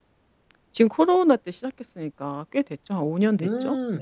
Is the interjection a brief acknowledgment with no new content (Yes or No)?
No